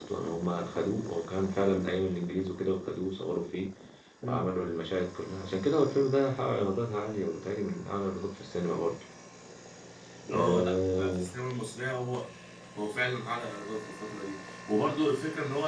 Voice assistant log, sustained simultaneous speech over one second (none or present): none